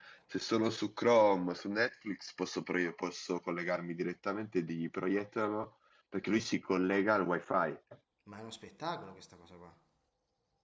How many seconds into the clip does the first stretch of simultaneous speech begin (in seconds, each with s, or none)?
none